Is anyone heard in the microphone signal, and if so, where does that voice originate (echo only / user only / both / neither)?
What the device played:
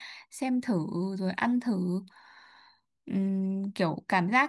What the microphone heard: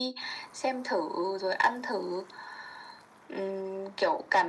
echo only